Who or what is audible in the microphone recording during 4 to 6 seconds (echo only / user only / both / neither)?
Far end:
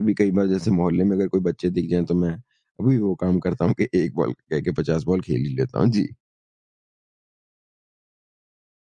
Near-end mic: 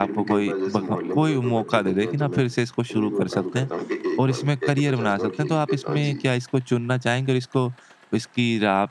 both